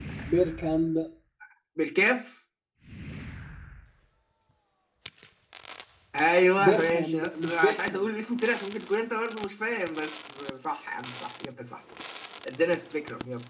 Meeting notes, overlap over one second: present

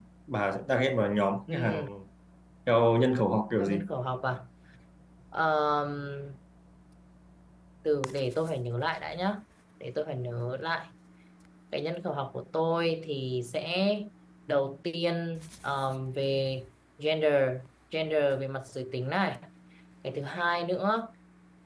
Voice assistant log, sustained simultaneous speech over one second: none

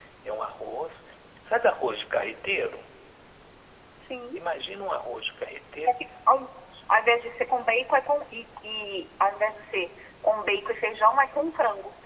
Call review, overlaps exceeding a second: none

